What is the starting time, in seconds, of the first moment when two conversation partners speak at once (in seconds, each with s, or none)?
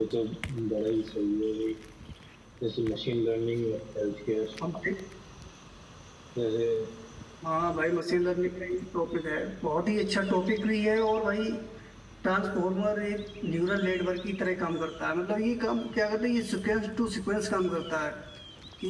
none